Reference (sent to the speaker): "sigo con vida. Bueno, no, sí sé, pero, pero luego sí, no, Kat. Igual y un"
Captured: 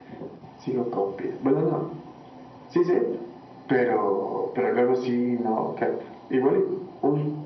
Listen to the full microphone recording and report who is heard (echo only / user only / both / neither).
echo only